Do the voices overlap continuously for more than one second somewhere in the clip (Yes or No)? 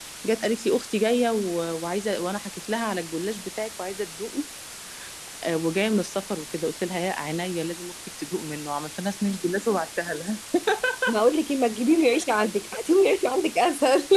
No